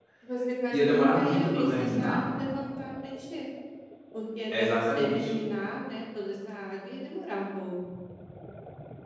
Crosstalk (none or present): present